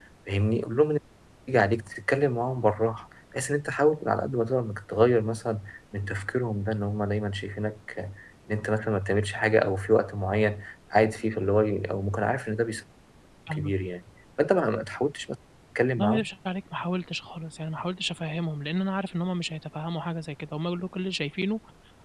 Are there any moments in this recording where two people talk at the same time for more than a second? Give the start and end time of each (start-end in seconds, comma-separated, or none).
none